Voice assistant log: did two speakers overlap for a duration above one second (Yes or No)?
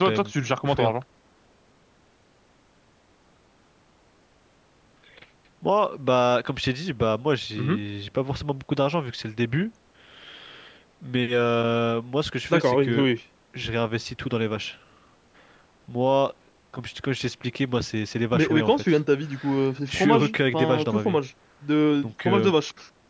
Yes